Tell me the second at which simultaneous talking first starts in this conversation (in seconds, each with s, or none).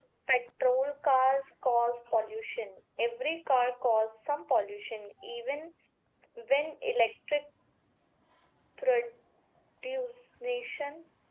none